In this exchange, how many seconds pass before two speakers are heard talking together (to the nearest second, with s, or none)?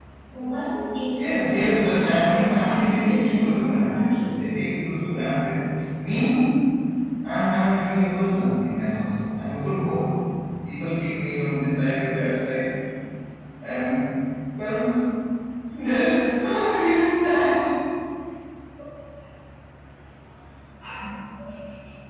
1 s